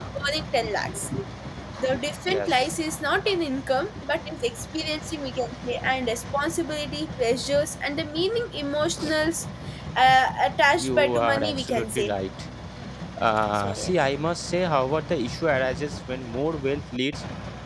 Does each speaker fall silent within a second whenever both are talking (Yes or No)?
No